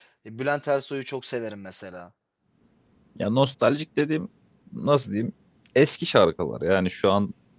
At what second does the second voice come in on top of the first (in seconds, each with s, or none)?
none